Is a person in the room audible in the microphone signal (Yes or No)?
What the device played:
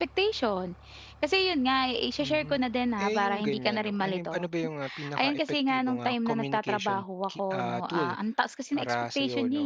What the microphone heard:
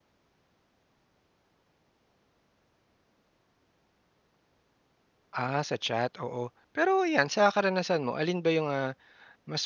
Yes